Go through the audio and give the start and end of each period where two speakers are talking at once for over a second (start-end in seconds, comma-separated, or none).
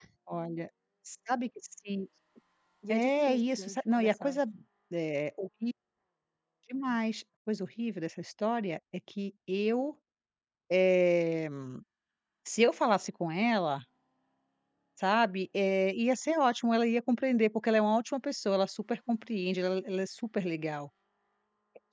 2.9-4.4